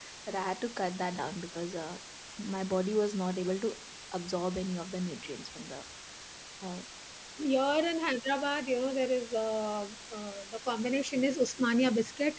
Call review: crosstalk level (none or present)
none